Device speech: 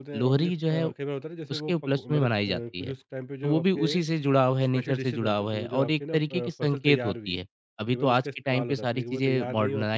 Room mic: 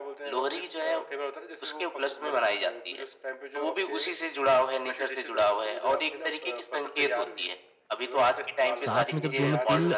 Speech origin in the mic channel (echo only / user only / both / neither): both